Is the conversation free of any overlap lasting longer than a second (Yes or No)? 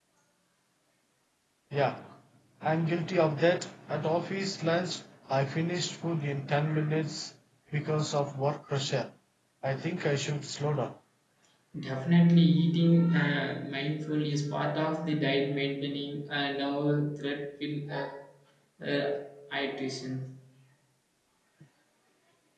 Yes